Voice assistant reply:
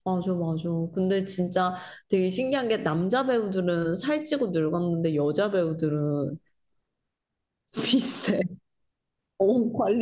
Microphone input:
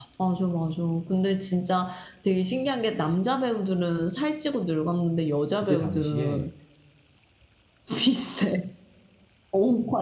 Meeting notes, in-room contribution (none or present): present